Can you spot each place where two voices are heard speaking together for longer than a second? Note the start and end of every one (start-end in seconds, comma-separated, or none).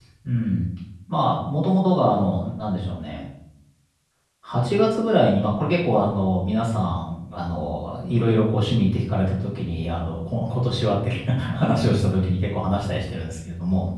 none